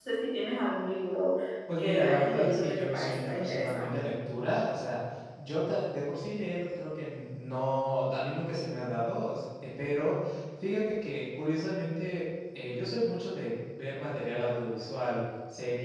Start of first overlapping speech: 1.8 s

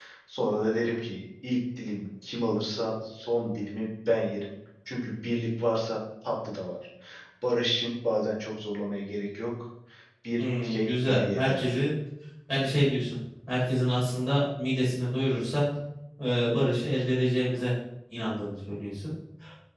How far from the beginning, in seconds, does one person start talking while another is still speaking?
10.4 s

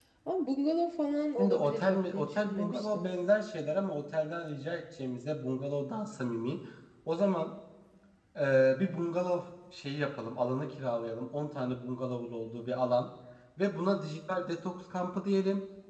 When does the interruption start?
1.4 s

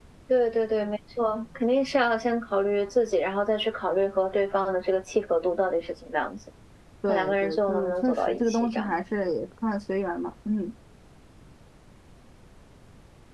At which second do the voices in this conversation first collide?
7.1 s

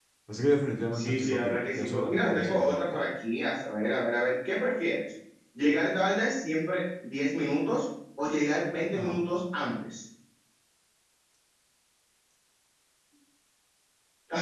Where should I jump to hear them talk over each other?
0.9 s

